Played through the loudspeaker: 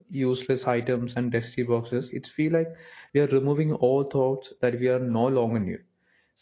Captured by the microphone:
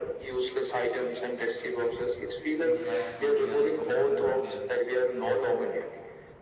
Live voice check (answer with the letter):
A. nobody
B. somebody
B